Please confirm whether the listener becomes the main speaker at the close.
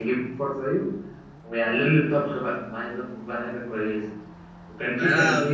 No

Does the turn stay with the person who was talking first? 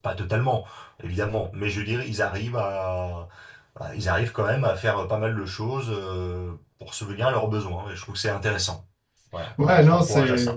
No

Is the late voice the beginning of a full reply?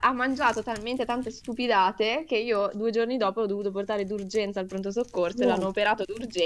No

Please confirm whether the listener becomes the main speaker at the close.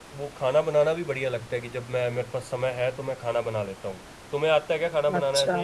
Yes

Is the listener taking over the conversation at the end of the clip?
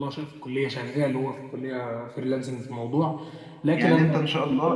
Yes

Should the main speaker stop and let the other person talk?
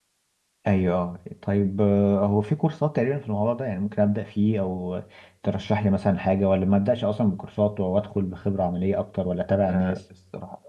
Yes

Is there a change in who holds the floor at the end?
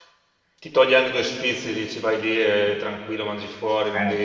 Yes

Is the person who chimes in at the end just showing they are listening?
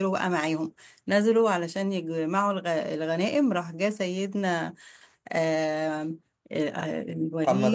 No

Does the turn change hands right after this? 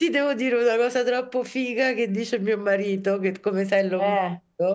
No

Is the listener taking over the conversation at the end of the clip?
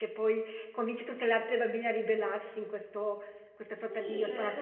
Yes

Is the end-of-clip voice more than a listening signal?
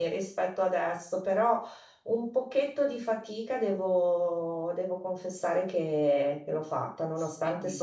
No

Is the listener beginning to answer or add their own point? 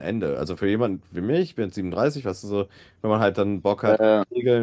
No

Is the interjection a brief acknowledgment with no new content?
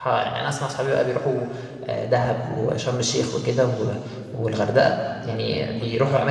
No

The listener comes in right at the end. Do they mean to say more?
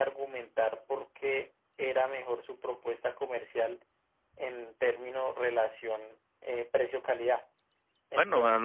Yes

